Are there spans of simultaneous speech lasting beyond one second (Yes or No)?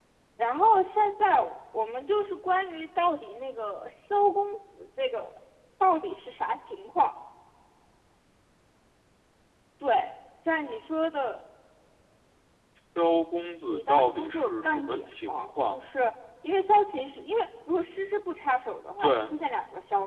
Yes